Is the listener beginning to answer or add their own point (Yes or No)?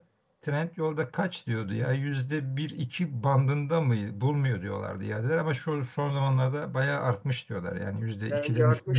Yes